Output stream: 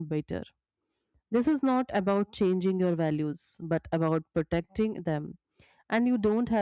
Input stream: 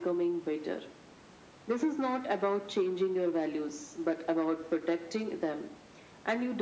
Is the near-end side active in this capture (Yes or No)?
No